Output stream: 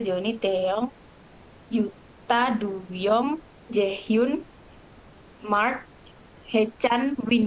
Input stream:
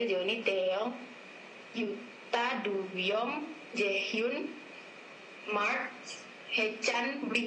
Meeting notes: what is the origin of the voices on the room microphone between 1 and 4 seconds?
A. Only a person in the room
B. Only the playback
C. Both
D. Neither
B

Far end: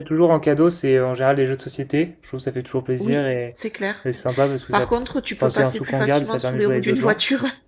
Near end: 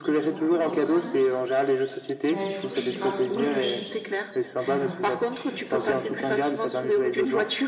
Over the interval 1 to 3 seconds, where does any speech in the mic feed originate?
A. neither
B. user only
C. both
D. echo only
C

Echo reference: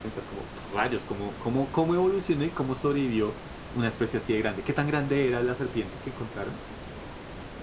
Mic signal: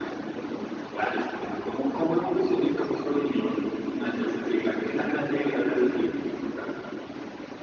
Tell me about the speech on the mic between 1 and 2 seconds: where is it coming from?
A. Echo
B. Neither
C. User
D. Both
A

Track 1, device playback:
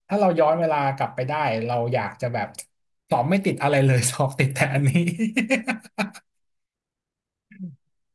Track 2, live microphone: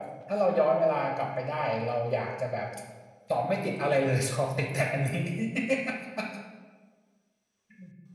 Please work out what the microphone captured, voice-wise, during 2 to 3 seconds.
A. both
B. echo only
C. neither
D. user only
B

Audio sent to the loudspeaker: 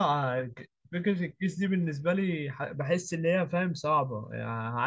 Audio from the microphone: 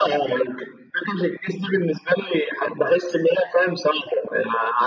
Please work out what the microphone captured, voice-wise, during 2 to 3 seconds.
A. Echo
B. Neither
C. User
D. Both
A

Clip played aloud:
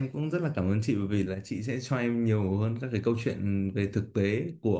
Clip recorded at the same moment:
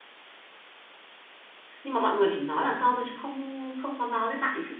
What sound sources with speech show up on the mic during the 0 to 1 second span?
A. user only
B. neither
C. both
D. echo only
B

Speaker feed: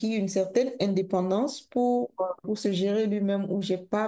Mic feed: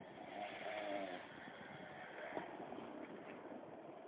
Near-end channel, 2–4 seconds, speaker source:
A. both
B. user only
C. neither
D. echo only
C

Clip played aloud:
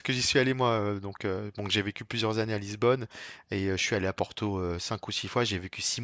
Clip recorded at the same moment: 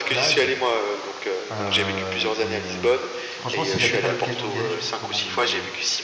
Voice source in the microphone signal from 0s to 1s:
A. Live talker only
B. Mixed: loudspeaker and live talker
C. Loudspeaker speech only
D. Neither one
B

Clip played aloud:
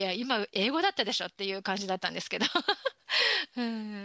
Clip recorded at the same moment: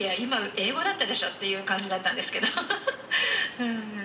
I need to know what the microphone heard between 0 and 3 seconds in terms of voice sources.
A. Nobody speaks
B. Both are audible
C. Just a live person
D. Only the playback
D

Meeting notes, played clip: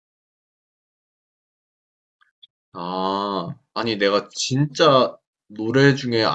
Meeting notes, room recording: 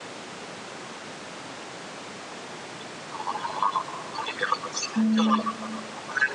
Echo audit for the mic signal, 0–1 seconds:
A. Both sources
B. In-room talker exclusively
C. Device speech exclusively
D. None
D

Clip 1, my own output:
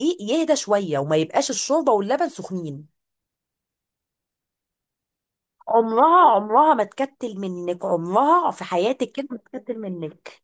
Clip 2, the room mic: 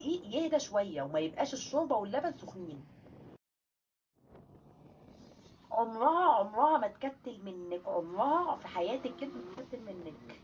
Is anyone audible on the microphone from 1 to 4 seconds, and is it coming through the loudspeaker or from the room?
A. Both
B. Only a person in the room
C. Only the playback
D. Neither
C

